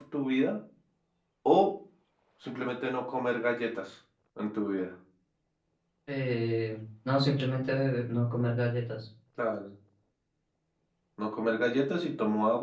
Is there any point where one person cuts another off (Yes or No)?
No